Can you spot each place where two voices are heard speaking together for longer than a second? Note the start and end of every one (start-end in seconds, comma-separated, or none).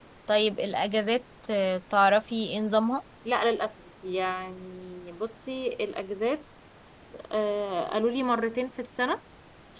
none